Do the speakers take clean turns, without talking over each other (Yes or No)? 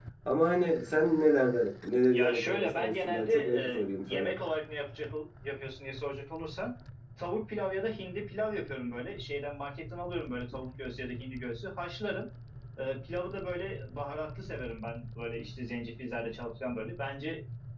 No